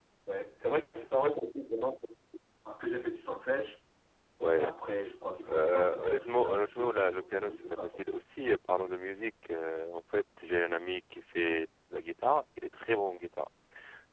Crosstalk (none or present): present